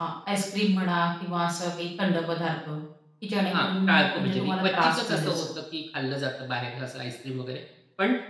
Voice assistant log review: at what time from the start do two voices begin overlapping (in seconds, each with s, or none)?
3.5 s